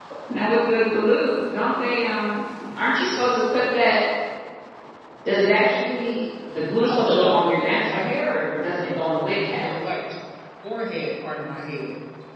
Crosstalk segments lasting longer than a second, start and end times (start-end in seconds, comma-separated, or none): 6.8-8.1